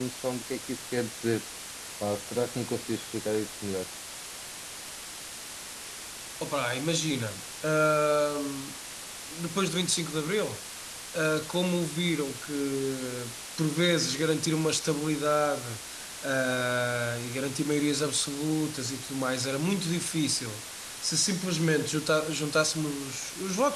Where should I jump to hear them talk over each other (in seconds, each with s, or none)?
none